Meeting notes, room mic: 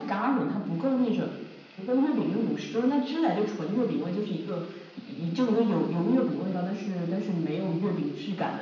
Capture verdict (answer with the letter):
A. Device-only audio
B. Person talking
A